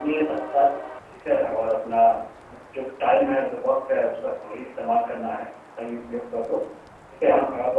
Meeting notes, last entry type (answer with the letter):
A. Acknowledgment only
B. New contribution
A